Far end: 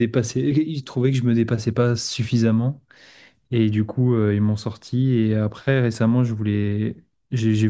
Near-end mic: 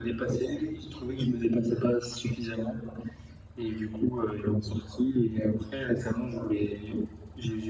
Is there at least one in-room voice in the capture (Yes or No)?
No